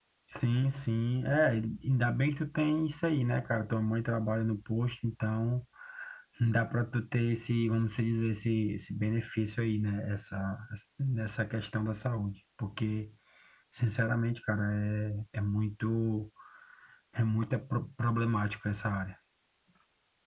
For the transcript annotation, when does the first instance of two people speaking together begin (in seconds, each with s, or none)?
none